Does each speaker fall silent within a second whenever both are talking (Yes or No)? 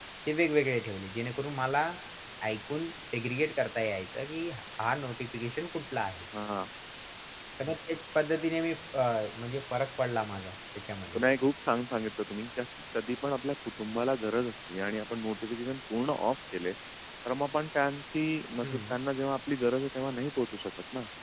Yes